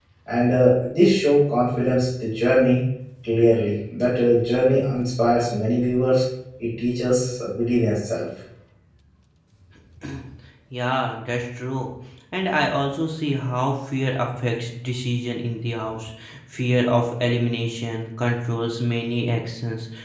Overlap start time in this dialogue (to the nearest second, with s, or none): none